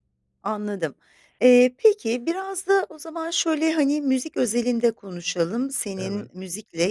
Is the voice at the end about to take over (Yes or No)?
No